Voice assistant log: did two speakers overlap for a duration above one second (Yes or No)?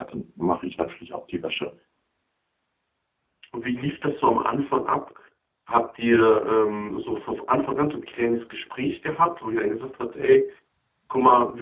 No